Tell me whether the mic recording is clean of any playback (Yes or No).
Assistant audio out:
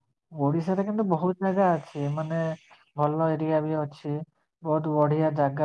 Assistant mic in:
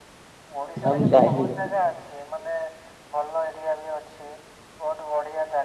No